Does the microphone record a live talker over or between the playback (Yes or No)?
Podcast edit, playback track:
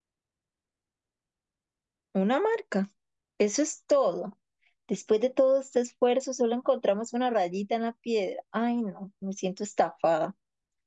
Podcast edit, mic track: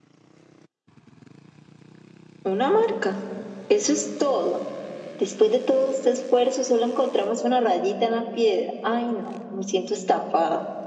No